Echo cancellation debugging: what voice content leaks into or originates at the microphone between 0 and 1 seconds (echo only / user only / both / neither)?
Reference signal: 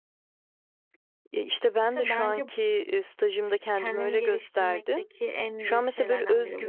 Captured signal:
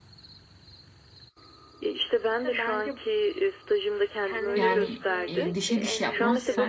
neither